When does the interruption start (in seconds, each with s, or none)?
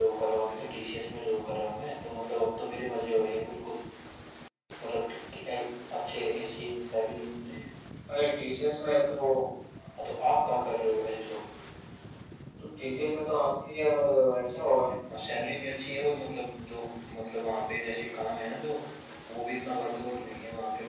none